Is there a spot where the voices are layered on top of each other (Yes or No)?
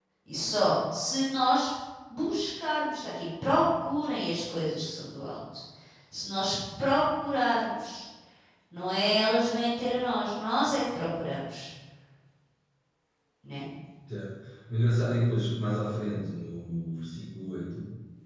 No